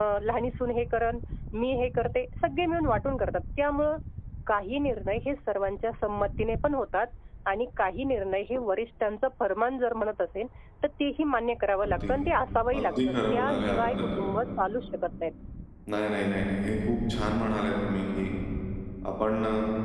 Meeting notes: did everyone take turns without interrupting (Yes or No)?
No